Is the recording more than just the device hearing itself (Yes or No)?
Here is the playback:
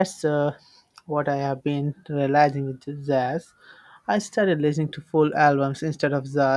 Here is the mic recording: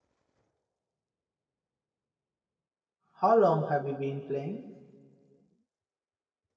Yes